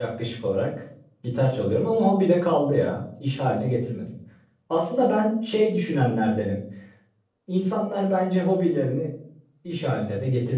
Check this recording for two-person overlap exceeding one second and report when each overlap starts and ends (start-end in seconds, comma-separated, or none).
none